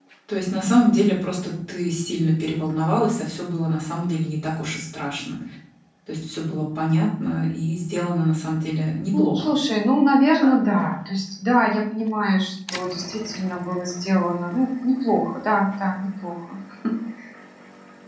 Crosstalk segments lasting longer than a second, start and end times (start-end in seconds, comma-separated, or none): none